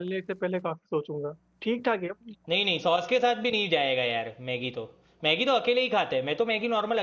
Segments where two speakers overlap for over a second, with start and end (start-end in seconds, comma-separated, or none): none